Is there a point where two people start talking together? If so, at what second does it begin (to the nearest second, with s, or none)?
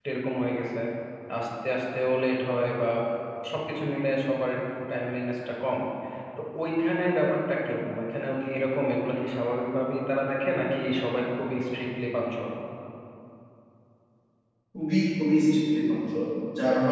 none